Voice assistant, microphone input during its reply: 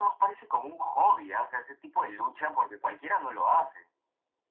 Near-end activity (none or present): none